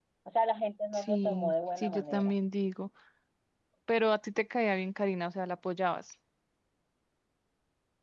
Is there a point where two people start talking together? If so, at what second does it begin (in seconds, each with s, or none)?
0.9 s